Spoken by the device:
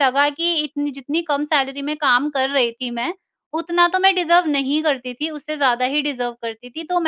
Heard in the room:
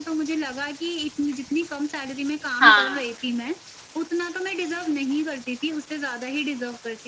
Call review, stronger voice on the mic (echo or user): user